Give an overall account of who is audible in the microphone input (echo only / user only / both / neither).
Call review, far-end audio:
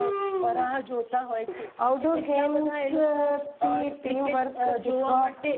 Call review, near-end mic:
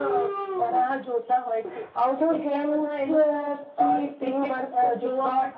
echo only